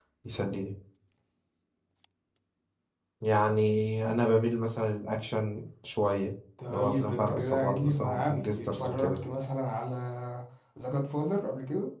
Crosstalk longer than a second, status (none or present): present